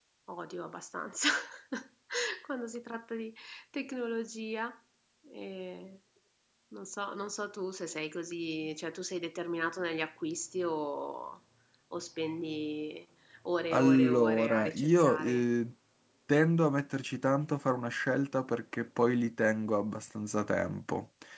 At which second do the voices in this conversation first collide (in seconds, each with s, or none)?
13.7 s